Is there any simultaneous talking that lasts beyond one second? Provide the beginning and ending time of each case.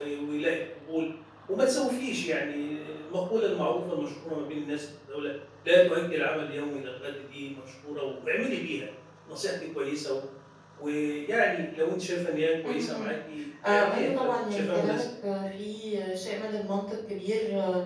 13.7-15.0

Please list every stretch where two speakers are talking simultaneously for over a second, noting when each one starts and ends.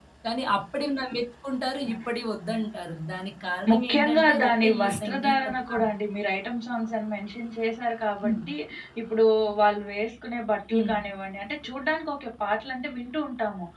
3.7-5.8

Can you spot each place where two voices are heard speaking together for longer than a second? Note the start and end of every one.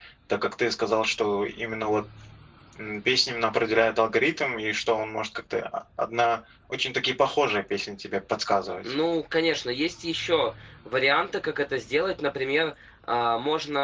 none

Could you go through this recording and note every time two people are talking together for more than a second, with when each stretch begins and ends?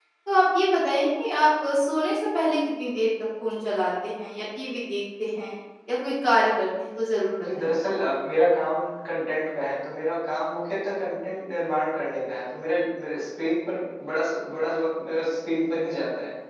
none

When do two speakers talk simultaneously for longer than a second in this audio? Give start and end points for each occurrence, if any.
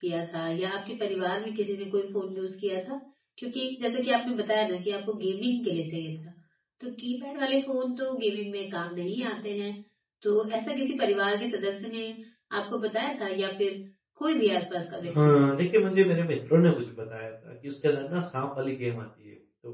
none

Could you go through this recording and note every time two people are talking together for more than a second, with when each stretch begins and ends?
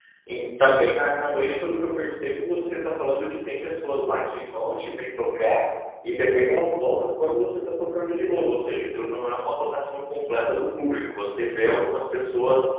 none

